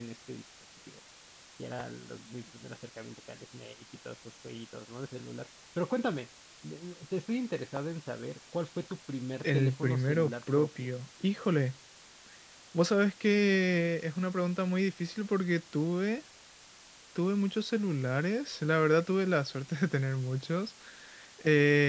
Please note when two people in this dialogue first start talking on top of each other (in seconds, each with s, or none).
9.4 s